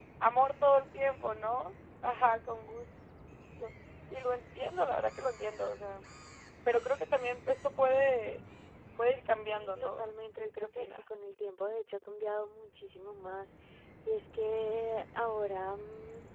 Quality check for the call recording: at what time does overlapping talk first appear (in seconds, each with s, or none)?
9.4 s